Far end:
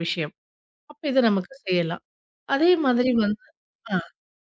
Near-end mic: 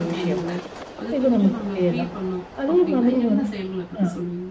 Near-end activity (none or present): present